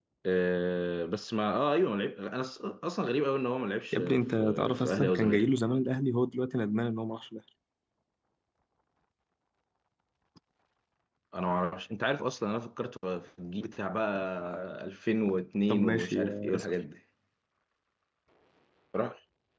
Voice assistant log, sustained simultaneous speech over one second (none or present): present